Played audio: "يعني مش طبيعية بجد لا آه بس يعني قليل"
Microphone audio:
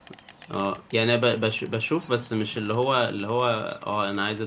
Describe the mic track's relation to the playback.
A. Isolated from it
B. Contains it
A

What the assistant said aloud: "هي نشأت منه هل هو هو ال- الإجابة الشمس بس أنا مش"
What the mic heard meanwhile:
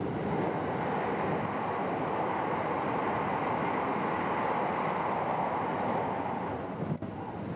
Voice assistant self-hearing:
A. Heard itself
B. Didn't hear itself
B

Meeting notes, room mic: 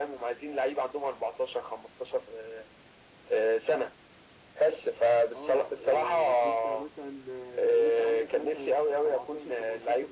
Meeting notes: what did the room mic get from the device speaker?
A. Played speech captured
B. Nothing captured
A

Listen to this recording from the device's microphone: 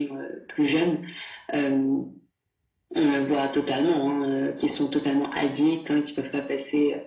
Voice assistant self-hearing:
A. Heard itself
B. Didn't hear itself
A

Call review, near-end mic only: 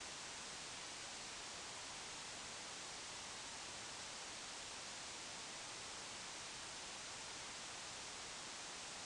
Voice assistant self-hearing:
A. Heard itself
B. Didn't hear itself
B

